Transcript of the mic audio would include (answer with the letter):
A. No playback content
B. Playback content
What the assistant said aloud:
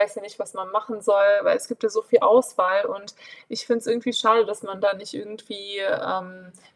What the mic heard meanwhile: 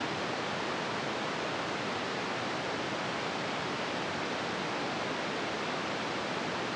A